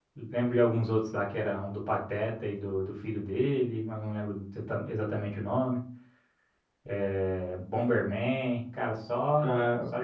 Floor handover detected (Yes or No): Yes